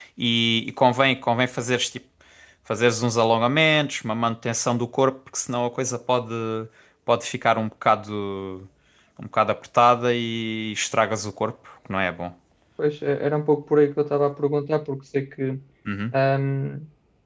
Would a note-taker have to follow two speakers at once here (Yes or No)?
No